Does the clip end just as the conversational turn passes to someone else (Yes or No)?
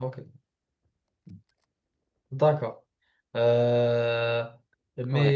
No